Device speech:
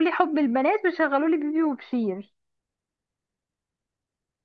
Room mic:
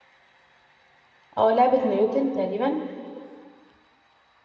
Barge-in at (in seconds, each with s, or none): 1.4 s